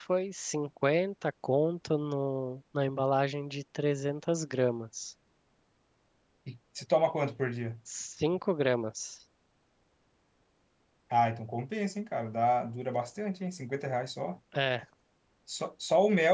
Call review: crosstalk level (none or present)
none